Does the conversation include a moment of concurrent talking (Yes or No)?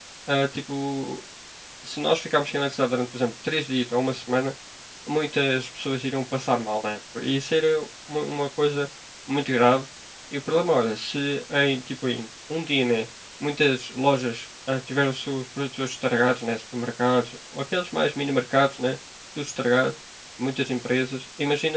No